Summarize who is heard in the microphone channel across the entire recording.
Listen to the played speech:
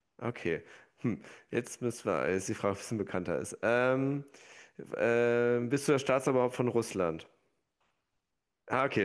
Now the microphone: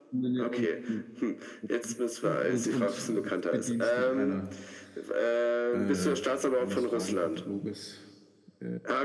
both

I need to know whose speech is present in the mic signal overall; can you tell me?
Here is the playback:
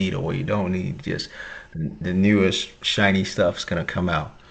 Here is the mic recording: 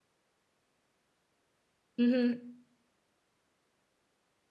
user only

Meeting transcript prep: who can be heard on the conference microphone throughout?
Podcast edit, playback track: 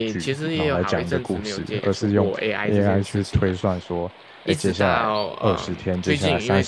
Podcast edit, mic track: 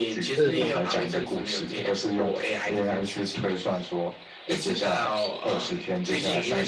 both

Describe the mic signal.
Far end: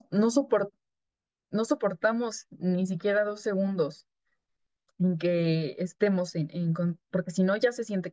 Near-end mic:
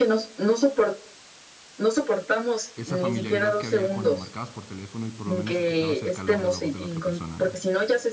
both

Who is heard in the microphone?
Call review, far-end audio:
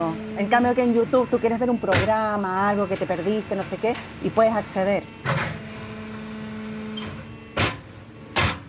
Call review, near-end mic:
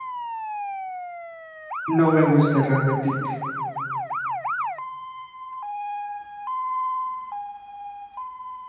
user only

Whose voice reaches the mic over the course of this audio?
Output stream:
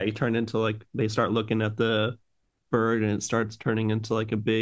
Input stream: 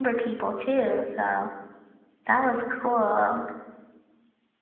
user only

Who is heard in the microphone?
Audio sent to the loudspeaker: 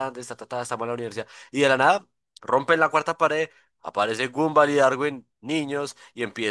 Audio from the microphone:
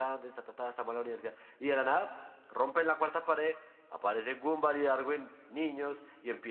echo only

